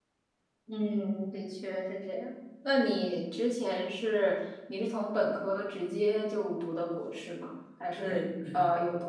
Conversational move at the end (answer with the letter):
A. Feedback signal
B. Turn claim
A